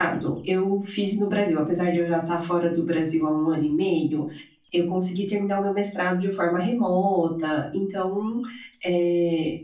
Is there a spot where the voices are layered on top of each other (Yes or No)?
No